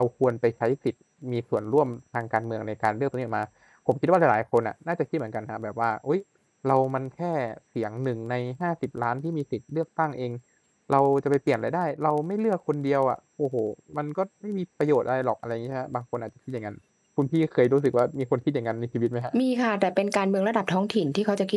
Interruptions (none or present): none